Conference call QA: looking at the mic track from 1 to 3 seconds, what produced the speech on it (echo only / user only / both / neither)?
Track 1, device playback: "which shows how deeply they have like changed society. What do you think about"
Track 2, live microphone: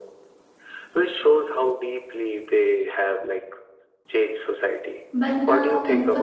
echo only